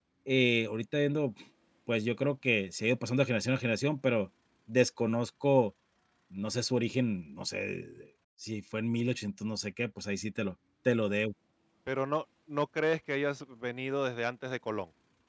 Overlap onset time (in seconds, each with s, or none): none